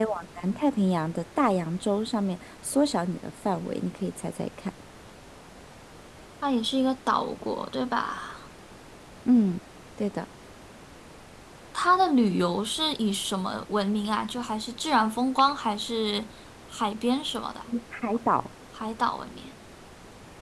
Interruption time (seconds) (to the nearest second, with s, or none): none